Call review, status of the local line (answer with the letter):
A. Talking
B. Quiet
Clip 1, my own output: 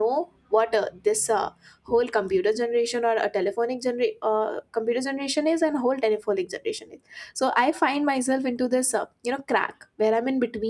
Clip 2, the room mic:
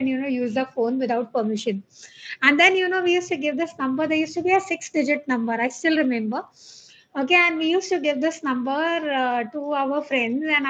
A